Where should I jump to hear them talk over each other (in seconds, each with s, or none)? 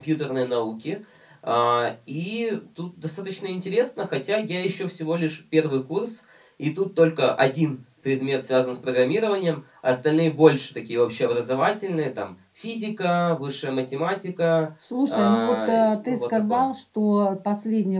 15.1 s